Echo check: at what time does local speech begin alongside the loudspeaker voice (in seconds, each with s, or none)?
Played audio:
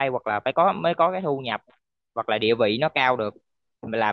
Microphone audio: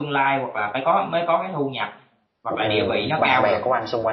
2.5 s